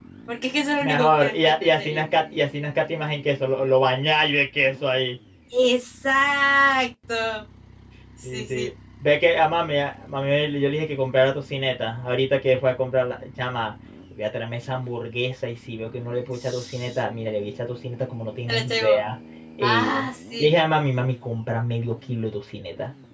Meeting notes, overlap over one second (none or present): present